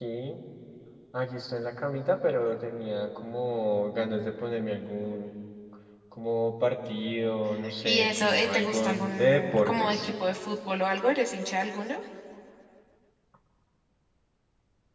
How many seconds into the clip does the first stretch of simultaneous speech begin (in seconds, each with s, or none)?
7.8 s